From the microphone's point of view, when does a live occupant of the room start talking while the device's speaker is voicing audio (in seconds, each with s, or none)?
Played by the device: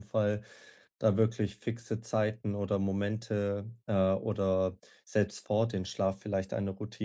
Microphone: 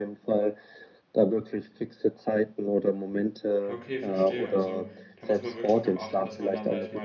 3.7 s